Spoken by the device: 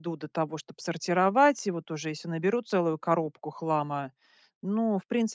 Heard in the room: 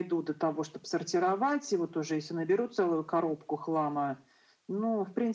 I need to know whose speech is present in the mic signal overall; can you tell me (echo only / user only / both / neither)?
echo only